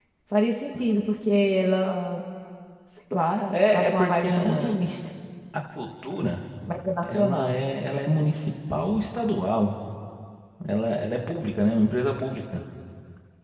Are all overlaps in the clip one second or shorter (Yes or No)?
No